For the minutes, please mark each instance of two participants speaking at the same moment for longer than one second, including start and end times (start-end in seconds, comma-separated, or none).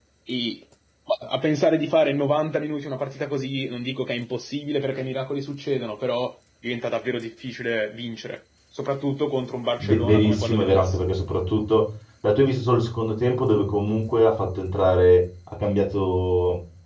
9.8-11.0